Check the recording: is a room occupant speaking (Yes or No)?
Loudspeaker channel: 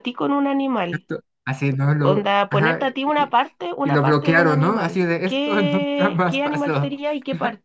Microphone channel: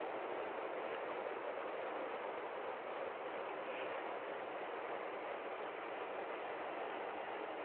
No